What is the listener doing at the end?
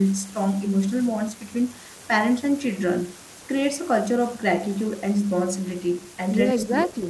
taking over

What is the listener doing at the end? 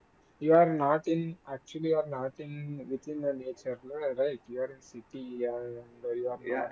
taking over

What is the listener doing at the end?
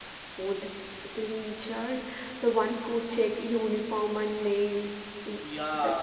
taking over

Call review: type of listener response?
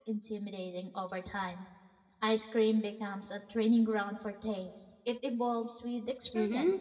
taking over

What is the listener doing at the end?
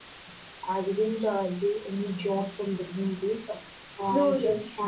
listening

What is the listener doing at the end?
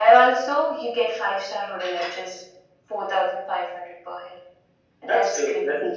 taking over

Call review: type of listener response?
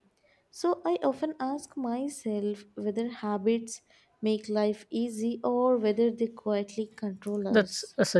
taking over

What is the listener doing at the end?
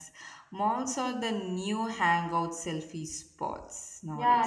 taking over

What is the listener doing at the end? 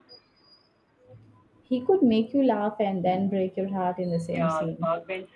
taking over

